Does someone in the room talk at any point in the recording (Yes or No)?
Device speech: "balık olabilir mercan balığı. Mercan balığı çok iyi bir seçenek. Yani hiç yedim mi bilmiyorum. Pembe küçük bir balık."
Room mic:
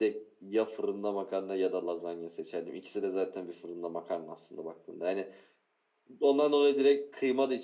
Yes